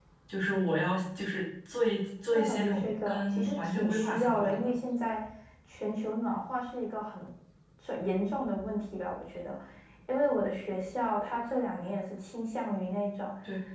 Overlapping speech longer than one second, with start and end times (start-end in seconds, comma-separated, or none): 2.3-4.7